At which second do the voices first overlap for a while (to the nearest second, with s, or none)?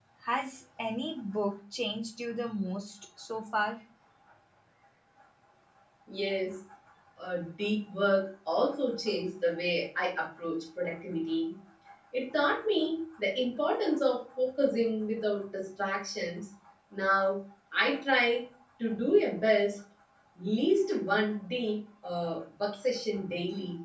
none